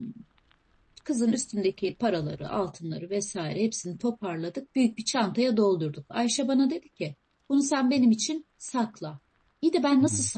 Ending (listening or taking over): listening